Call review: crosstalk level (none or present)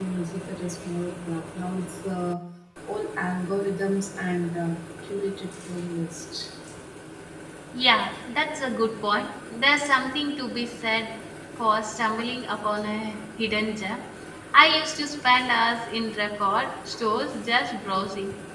none